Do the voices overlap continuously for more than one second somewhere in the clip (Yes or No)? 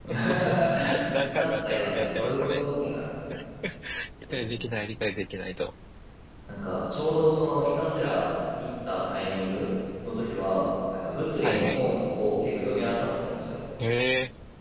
Yes